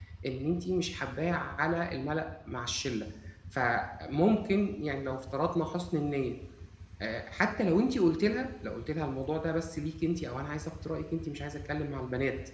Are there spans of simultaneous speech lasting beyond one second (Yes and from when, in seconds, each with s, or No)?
No